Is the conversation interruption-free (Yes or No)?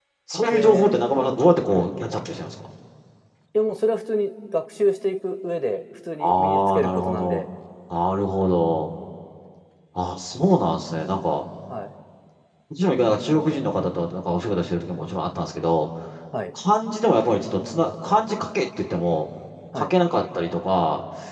No